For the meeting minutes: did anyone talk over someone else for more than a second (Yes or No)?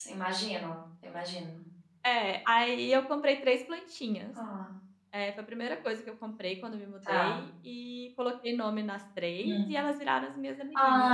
No